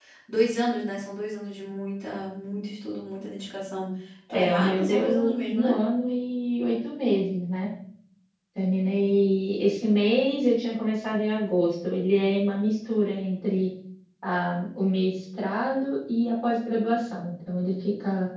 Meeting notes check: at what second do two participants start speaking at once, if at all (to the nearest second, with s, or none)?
4 s